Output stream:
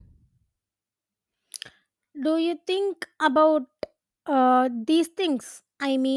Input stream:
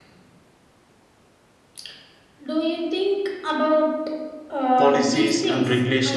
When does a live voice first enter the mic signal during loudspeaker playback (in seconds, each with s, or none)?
4.8 s